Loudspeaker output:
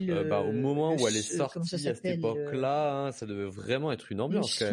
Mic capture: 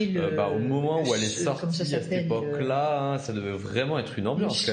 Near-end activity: none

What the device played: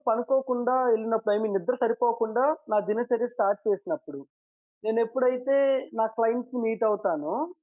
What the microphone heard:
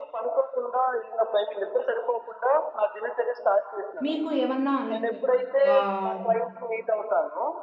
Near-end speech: present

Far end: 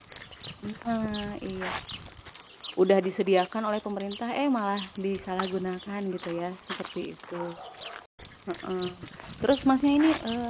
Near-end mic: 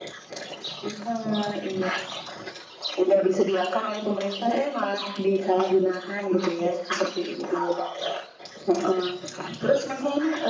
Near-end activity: none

